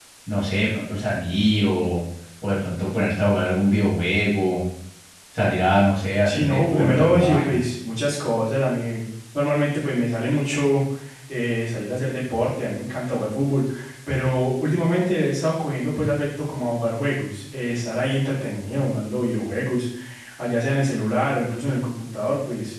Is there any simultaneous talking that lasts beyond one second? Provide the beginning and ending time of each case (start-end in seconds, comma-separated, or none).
6.2-7.6